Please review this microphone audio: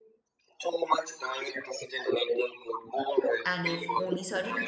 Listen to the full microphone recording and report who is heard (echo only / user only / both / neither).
both